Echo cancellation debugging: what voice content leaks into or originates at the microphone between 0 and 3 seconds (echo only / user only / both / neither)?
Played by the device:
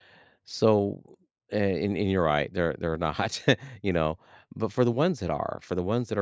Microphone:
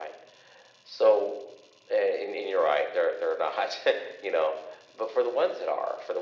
echo only